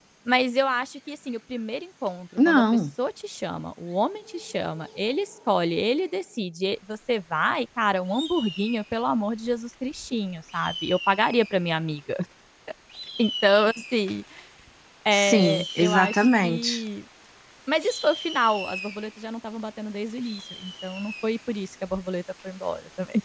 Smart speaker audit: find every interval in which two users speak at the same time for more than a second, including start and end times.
15.2-16.8

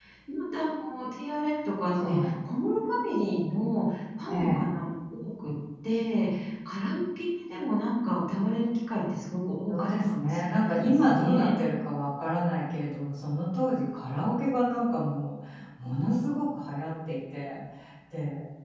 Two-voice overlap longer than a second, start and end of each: 9.7-11.7

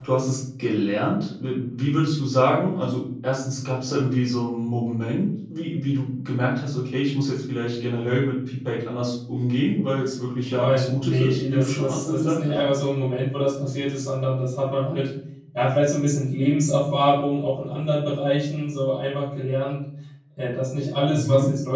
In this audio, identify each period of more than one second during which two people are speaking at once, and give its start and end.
10.4-12.5

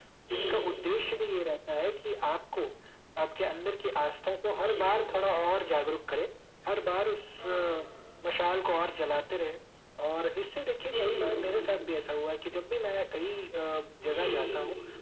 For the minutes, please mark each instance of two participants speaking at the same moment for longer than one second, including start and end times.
none

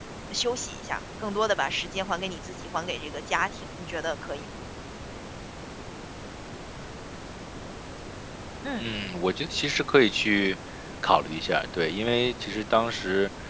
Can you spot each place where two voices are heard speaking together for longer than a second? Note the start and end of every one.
none

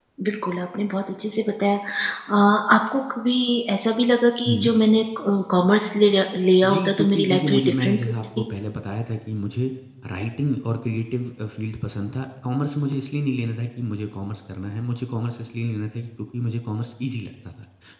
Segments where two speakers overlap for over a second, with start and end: 6.7-8.4

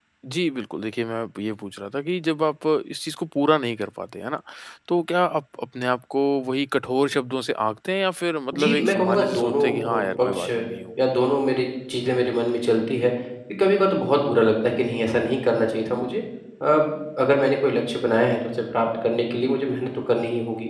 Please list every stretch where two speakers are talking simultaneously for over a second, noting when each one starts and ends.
8.6-10.5

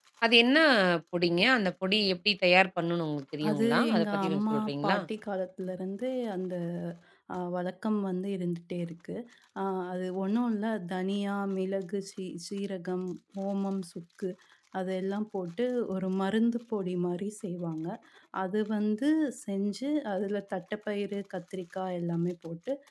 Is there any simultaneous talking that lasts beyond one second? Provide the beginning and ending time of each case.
3.5-5.0

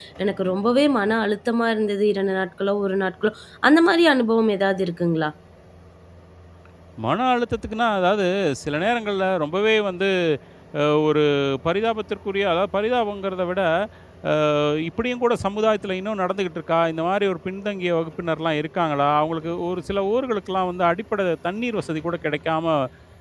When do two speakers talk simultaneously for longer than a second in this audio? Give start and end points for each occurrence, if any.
none

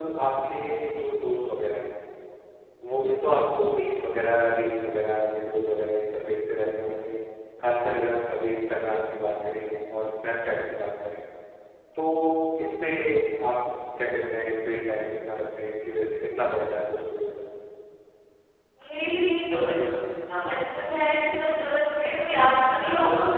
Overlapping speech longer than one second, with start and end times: none

